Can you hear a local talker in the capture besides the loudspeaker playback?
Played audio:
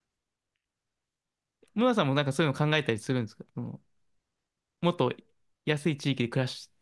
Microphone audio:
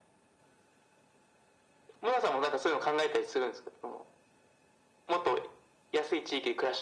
No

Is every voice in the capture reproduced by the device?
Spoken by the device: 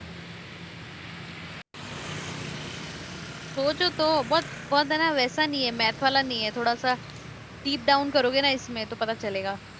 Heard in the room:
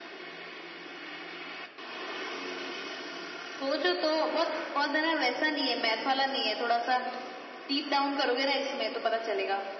Yes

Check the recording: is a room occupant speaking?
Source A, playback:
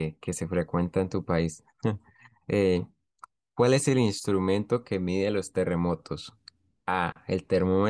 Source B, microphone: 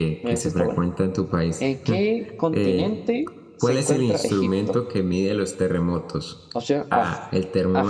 Yes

